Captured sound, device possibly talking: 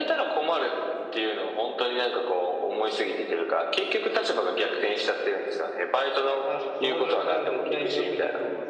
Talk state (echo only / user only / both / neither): both